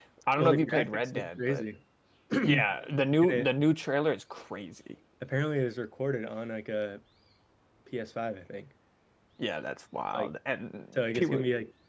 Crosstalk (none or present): present